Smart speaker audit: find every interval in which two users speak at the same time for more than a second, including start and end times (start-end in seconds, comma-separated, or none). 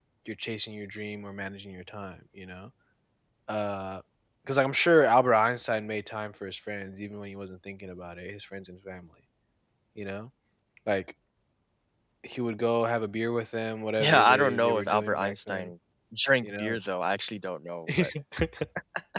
14.0-15.7